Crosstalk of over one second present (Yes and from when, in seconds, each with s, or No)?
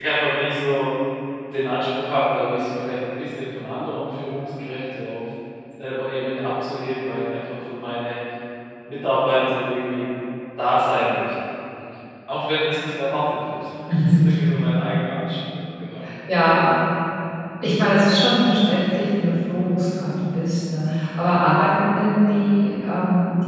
No